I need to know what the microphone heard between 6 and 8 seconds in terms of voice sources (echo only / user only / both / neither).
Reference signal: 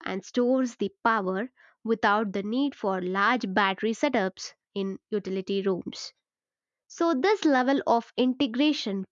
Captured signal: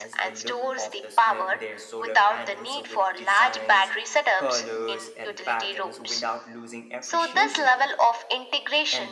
both